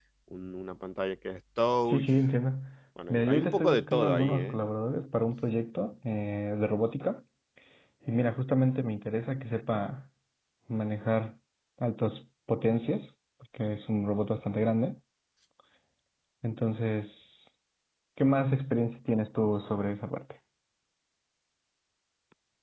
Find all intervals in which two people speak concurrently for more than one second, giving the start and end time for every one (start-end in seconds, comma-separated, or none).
3.1-4.6